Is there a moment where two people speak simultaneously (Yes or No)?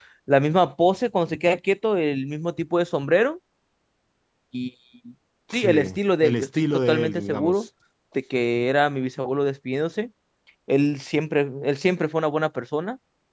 Yes